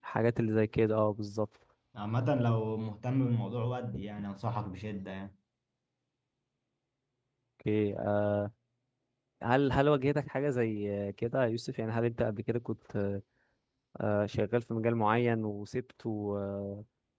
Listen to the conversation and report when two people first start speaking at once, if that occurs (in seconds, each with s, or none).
none